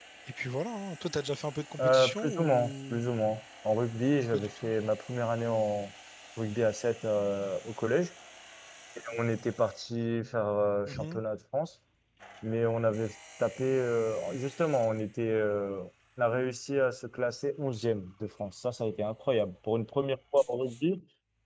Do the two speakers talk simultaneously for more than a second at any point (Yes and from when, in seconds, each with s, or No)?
Yes, from 1.8 s